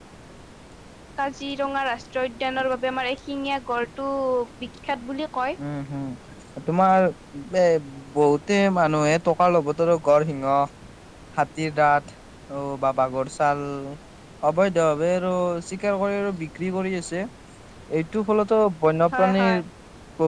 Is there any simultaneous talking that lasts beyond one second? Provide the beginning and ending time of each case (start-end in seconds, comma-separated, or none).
none